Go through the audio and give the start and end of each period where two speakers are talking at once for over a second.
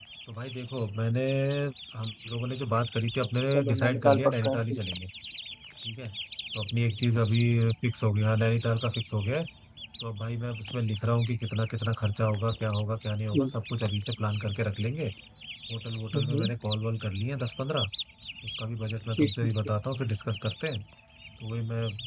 3.5-4.8

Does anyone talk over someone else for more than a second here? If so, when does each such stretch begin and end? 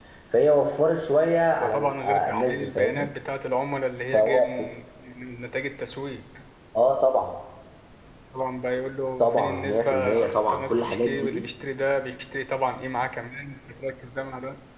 1.6-3.1, 9.2-11.5

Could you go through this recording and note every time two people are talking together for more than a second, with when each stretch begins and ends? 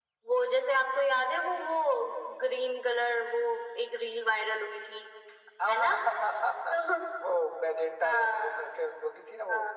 none

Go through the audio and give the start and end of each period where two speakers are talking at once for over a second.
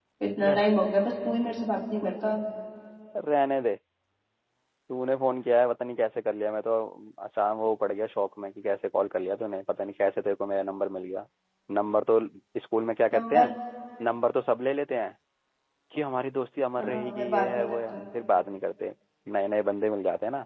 16.8-18.0

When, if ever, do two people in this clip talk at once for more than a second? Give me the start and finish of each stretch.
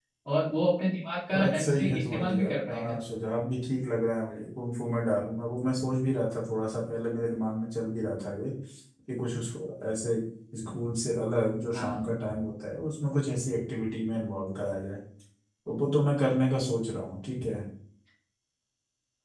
1.3-3.0

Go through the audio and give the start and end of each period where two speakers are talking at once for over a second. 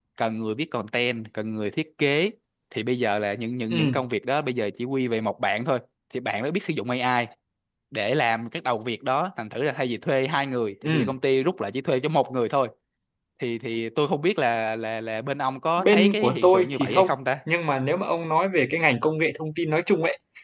15.8-17.1

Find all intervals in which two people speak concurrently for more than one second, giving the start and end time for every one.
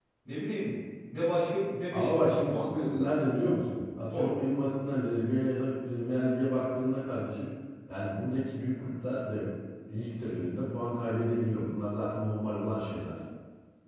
1.9-3.2

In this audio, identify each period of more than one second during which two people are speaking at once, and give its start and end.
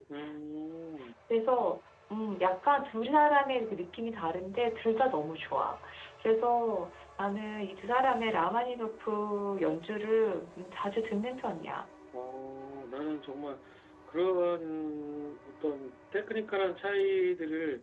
none

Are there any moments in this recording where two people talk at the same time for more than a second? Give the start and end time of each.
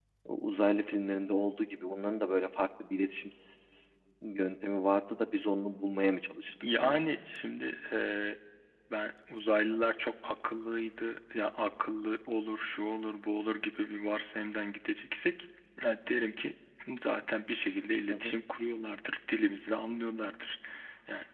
none

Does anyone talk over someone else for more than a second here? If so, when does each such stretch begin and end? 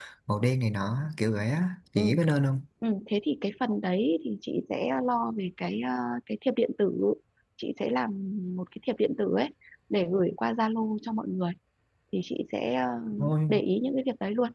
none

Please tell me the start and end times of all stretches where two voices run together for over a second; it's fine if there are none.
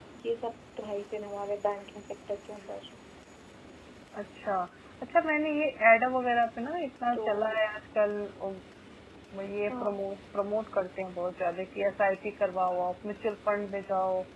none

